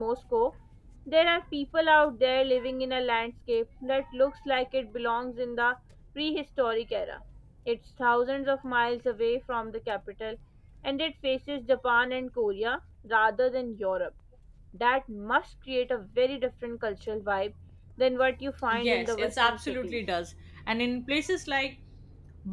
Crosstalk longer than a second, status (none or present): present